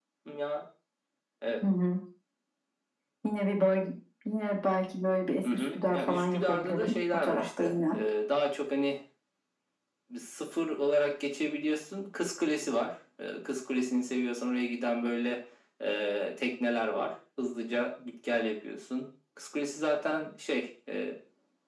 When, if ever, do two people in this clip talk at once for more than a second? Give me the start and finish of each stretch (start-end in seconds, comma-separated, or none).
5.5-8.0